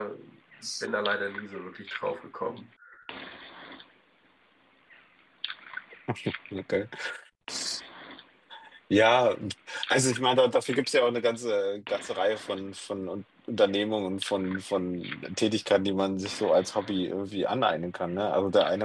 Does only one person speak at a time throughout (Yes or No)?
Yes